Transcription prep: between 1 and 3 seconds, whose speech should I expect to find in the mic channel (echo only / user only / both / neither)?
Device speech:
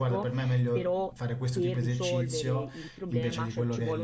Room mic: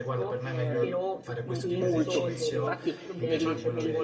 both